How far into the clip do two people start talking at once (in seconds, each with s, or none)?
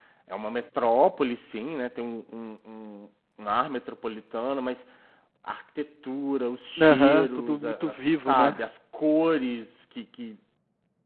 6.8 s